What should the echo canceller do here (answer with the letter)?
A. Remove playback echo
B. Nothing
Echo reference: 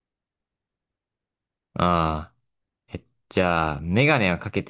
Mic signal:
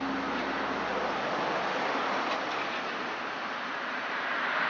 B